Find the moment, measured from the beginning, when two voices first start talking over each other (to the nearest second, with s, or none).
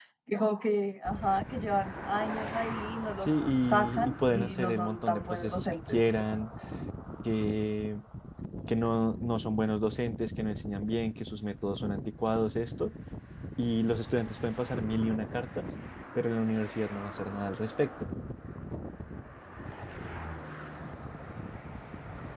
3 s